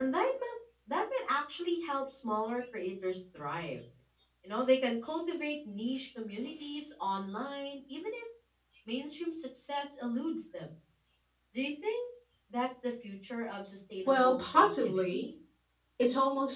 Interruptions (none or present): present